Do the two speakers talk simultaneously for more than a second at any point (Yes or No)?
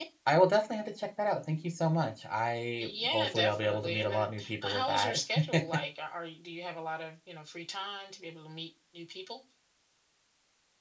Yes